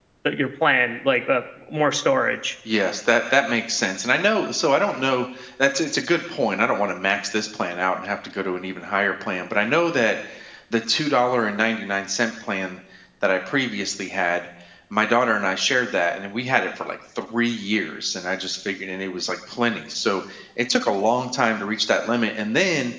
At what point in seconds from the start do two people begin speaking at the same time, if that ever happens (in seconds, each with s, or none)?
none